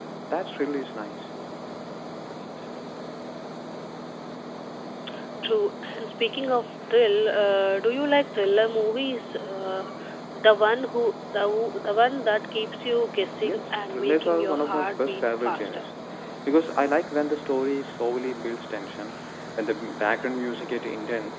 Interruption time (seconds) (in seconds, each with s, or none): 13.3 s